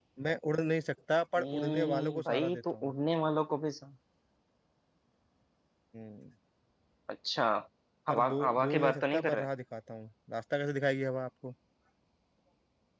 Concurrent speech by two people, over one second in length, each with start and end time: 1.4-2.9, 8.1-9.5

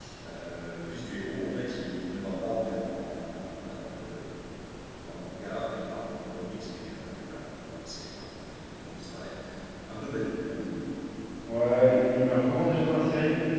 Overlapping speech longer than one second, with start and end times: none

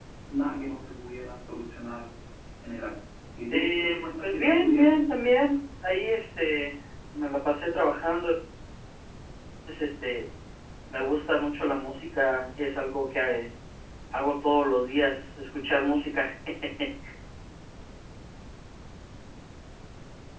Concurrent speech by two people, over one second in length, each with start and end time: 3.5-4.9

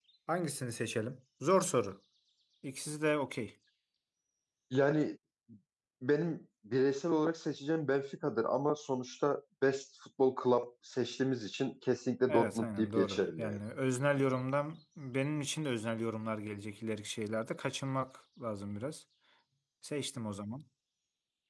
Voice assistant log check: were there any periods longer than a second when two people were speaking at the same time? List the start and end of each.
12.3-13.6

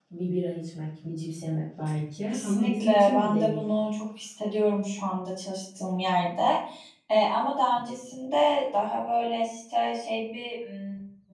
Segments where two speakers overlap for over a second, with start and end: 2.3-3.6

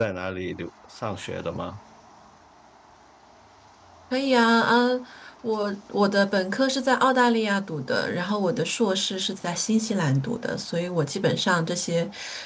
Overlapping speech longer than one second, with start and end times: none

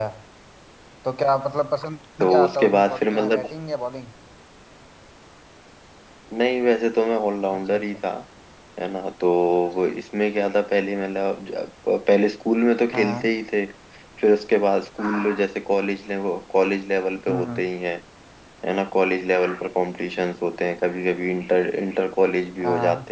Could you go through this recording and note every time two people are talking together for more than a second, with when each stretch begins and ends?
2.2-3.5

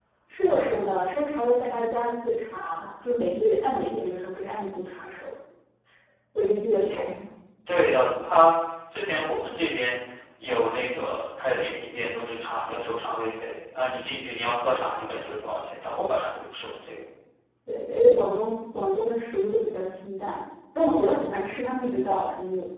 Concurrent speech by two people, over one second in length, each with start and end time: none

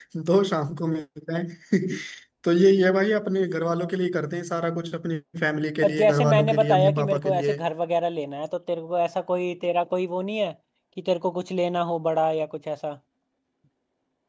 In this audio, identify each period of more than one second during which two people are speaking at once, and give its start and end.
5.8-7.6

